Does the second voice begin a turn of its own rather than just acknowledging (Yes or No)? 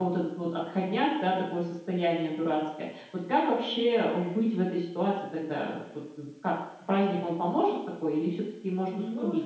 Yes